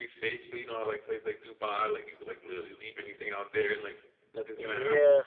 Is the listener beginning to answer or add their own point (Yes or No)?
Yes